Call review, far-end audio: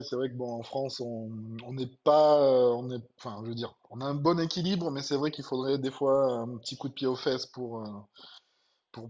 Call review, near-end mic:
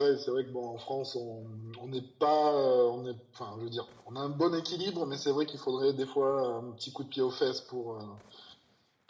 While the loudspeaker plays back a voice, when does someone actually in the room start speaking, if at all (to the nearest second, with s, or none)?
none